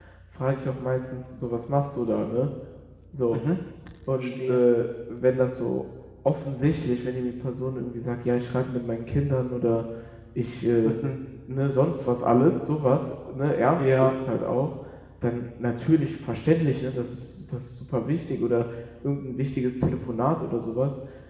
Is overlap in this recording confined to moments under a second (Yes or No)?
Yes